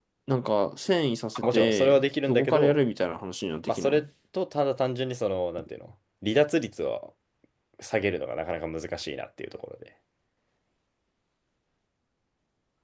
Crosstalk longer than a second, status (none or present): present